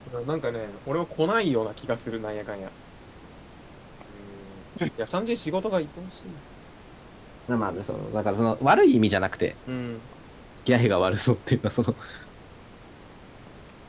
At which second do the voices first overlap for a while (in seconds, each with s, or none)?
none